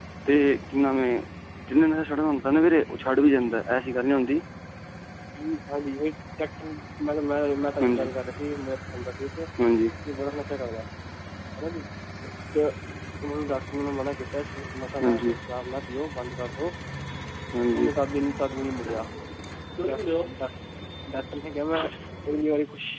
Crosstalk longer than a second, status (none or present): none